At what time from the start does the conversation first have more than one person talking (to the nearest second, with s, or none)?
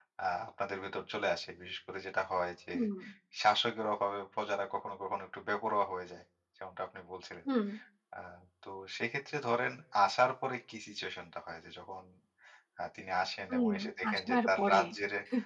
13 s